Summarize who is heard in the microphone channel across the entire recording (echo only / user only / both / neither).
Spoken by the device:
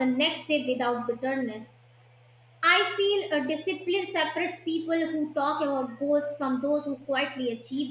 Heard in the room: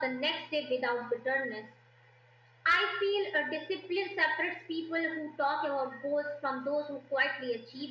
echo only